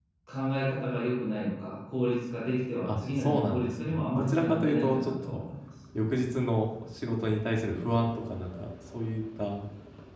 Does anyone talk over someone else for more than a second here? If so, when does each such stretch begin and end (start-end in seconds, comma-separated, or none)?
2.9-5.4